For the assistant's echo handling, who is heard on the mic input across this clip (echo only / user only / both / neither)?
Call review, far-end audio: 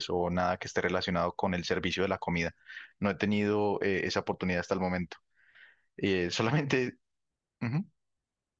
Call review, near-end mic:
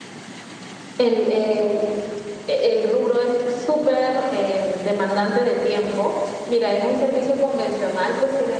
user only